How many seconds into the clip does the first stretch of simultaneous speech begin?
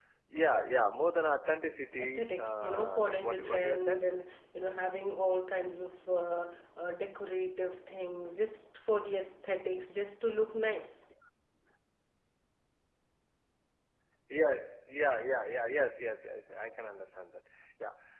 1.8 s

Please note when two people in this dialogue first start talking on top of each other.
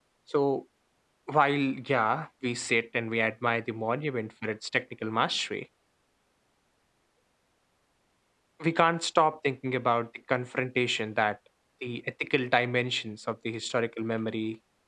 none

